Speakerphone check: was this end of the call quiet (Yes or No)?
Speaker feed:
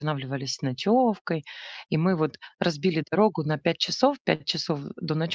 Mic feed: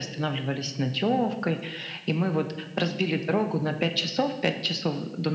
Yes